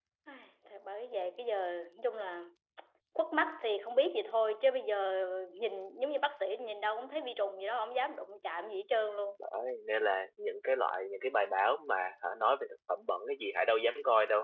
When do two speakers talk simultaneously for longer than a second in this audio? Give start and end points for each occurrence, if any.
none

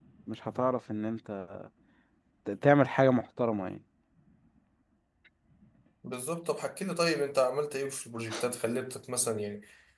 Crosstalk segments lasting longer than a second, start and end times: none

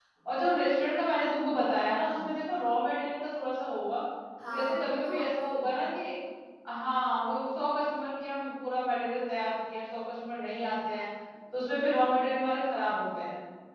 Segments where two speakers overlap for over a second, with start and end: 4.5-5.7

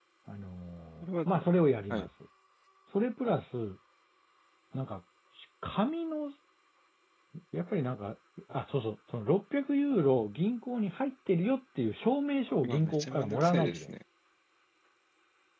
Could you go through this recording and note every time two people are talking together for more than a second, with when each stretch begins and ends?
12.6-13.9

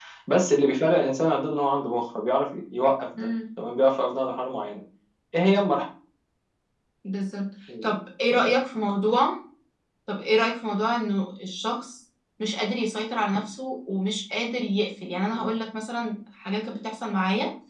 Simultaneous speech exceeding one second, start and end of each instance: none

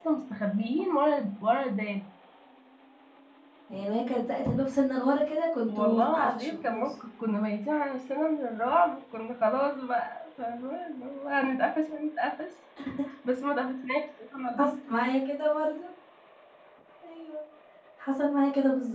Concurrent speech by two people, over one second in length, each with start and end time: 5.7-6.9

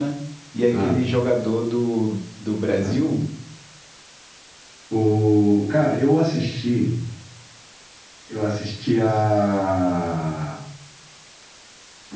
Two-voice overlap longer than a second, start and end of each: none

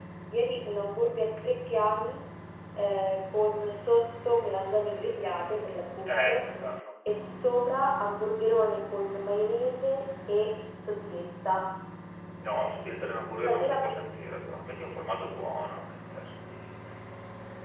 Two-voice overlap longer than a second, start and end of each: none

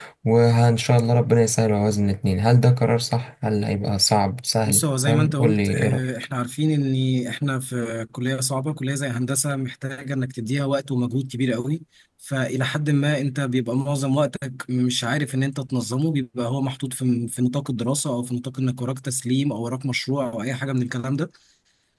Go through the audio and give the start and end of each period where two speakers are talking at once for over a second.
4.7-6.0

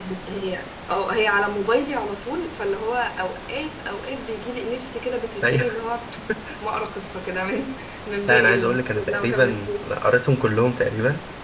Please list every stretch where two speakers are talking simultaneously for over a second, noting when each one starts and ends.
8.3-9.7

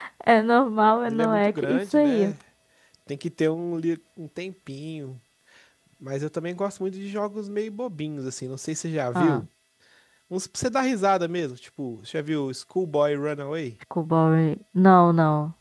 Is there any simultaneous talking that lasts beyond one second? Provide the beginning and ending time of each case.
1.1-2.3

